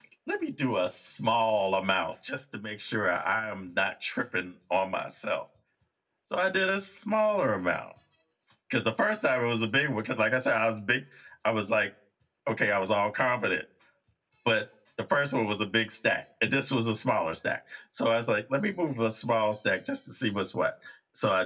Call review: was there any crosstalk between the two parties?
No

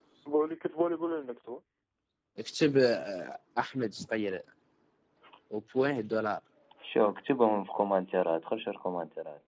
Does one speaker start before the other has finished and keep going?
No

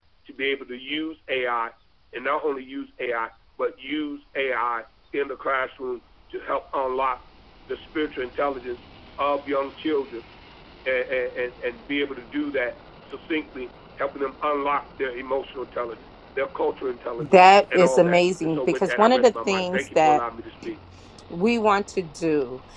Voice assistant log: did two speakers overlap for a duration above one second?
Yes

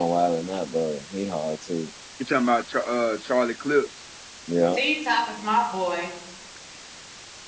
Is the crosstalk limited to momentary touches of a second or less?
Yes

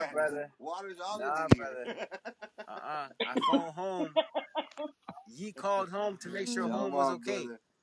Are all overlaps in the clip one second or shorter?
No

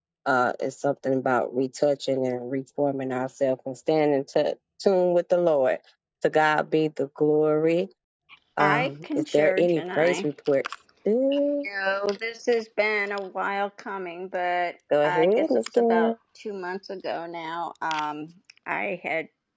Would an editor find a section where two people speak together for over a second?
Yes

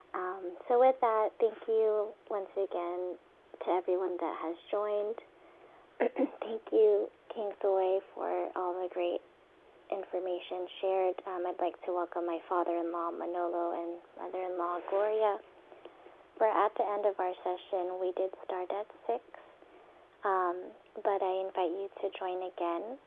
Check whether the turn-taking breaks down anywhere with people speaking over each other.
No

